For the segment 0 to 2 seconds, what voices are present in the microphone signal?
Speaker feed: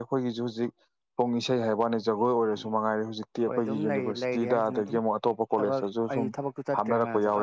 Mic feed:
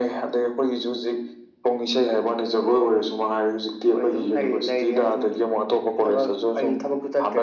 echo only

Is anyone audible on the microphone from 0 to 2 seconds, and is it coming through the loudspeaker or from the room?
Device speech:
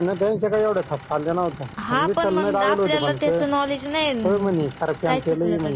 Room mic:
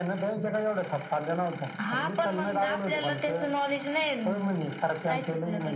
echo only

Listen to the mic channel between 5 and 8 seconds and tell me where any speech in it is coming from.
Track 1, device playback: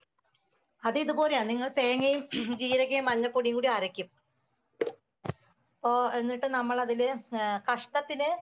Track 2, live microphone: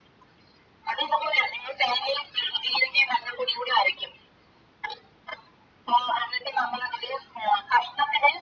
echo only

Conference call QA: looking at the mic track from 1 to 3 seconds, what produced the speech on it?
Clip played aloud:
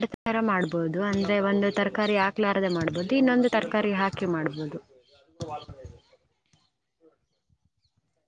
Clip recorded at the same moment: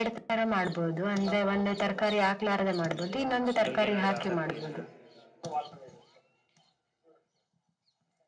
echo only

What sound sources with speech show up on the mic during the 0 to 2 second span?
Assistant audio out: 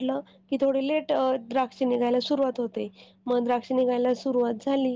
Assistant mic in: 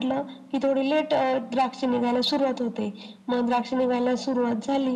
echo only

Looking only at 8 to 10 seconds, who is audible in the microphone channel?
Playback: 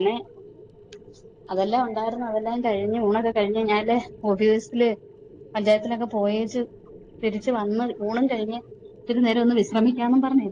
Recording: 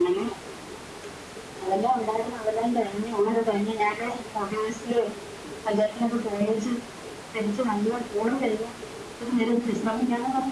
echo only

